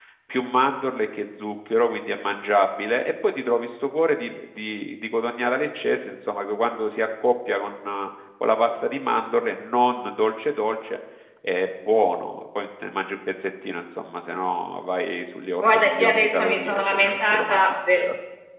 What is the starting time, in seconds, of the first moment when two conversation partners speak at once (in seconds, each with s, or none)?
15.6 s